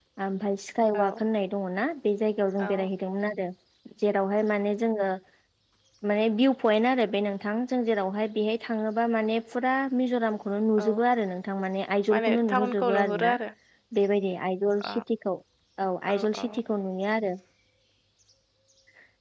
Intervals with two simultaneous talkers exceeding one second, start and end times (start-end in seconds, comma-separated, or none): 12.1-13.3